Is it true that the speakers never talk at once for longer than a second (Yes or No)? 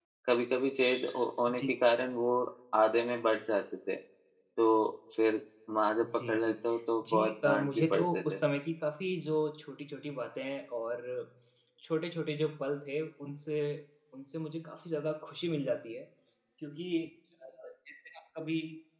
No